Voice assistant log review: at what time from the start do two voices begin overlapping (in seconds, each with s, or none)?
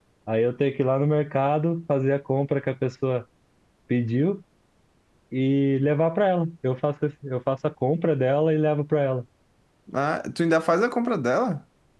none